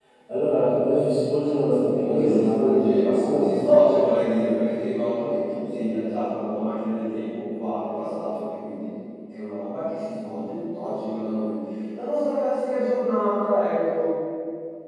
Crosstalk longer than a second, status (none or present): present